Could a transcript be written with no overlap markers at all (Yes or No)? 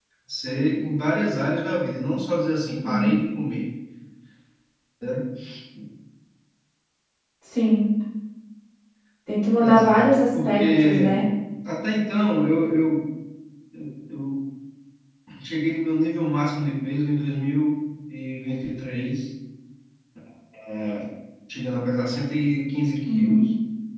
No